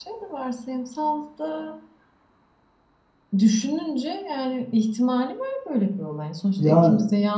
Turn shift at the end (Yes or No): No